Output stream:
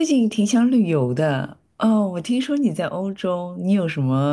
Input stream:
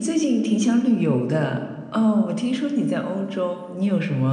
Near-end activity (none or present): none